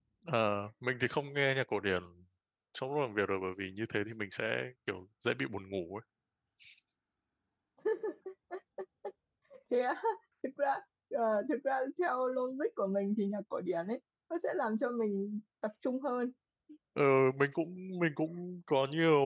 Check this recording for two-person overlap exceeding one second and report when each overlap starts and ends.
none

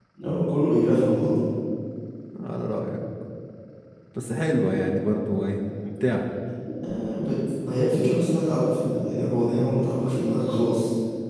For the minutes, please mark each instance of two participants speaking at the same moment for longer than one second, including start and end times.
none

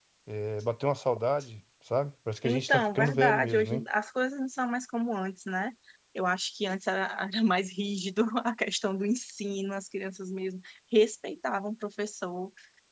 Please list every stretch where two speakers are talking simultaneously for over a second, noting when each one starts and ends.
2.4-3.8

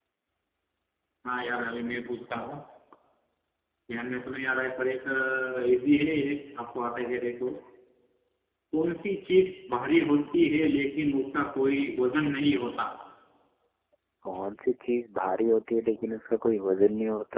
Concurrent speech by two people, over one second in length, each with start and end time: none

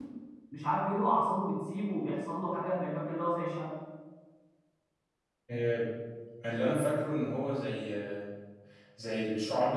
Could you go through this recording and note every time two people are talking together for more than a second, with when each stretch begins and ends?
none

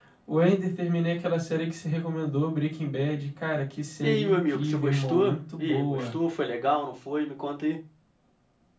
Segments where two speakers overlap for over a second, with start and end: 4.0-6.0

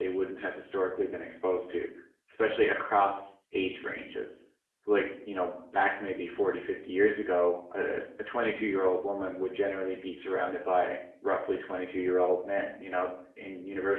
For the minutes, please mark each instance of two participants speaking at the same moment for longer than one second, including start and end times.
none

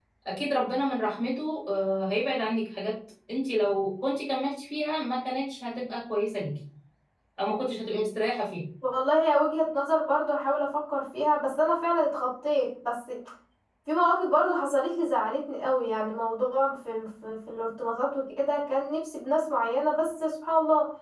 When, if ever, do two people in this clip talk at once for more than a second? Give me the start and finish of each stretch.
none

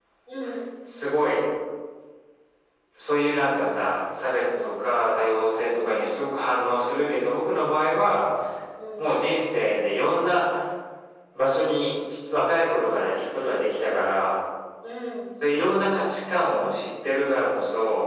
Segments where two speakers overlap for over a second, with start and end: none

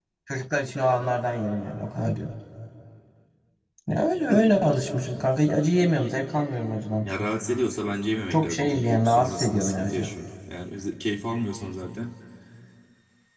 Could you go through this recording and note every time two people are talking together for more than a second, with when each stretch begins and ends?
8.3-10.1

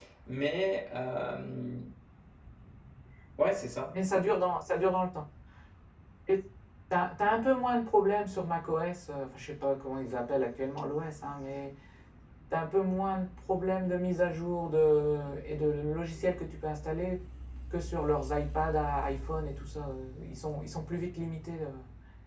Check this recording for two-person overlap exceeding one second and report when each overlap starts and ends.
none

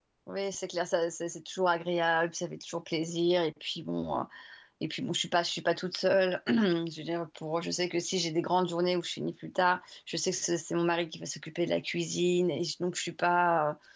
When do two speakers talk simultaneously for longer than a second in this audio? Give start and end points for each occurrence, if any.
none

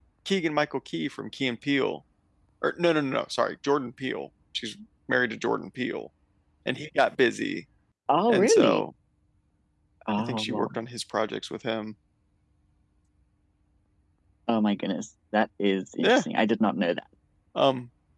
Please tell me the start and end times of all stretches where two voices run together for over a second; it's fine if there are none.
none

